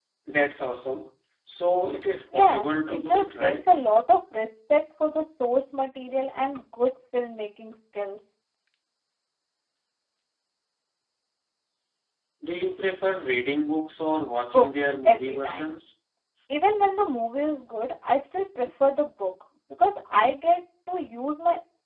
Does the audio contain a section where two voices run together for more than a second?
Yes, from 2.3 s

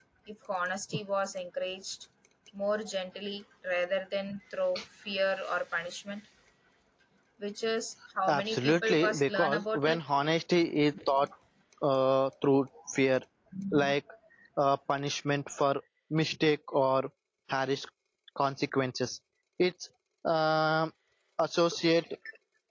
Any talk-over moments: Yes, from 8.3 s

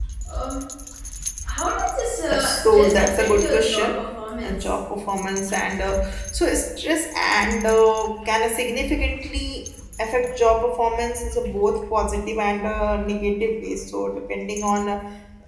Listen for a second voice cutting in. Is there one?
Yes, from 2.3 s

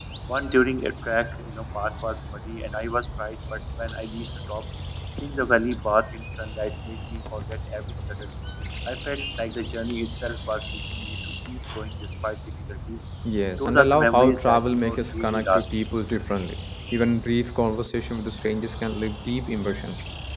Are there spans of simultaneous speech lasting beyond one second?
Yes, from 13.6 s

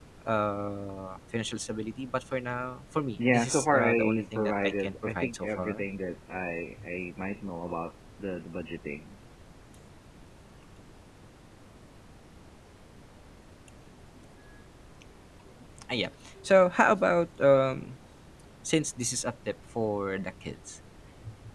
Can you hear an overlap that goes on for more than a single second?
Yes, from 3.2 s

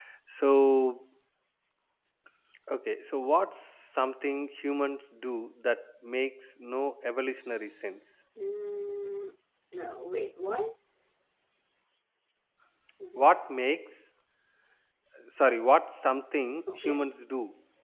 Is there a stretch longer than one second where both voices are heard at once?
No

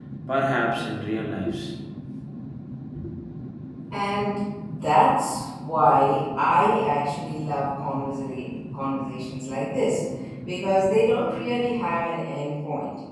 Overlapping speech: No

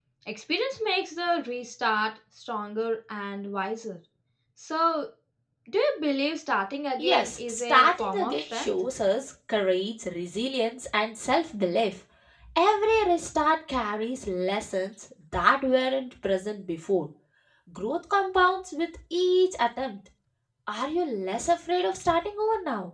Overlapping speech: Yes, from 7.0 s

